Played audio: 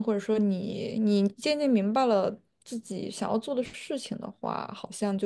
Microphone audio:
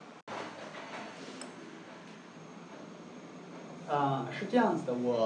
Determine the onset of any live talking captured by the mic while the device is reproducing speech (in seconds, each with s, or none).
3.8 s